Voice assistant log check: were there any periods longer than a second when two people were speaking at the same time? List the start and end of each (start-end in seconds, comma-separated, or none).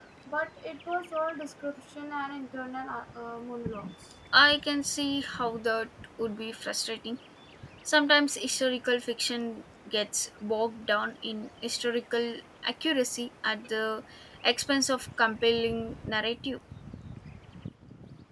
none